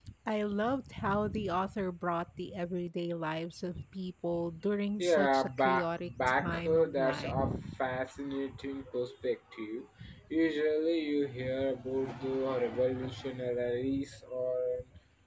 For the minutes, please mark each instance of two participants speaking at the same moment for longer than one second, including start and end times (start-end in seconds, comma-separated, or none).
5.0-7.4